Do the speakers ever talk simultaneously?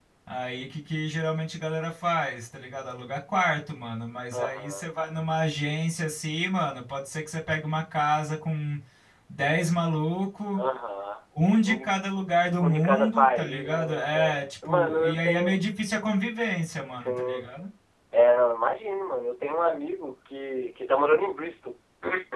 Yes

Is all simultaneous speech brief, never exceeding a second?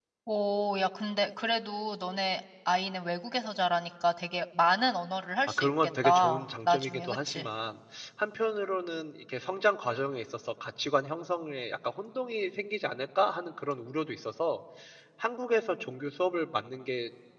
No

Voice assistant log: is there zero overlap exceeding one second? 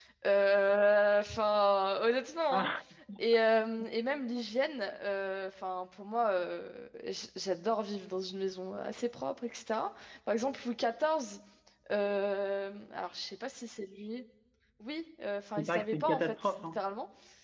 No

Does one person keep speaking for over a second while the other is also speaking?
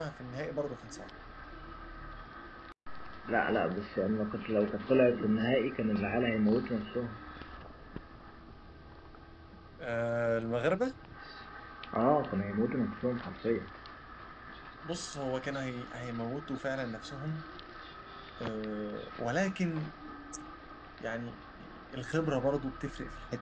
No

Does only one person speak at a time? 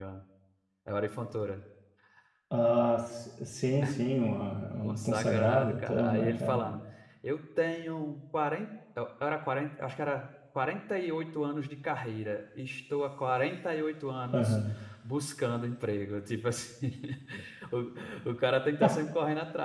No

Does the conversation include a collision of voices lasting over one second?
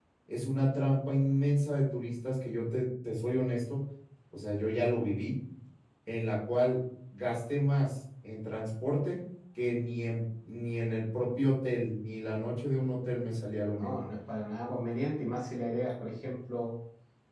No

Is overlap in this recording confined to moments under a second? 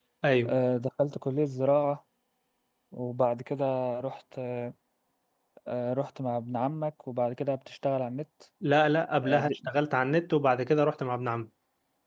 Yes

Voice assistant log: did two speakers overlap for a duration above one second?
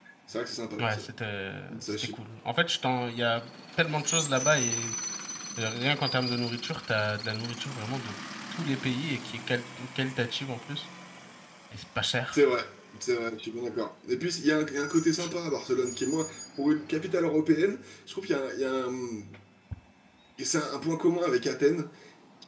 No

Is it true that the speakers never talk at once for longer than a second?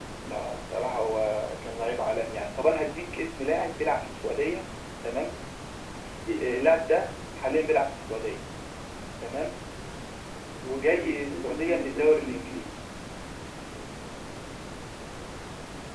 No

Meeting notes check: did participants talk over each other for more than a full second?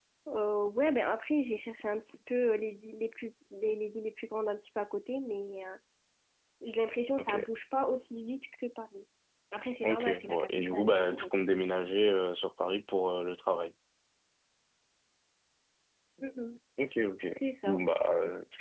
Yes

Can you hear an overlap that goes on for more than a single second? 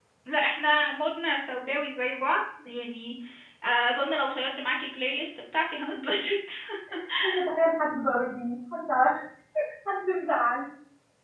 No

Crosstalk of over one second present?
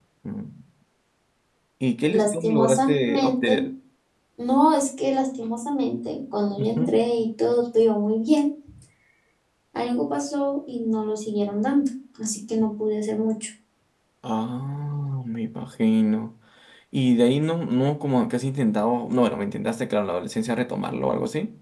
Yes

